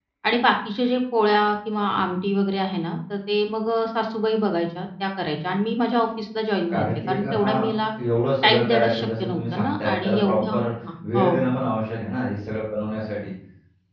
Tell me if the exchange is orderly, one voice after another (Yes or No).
No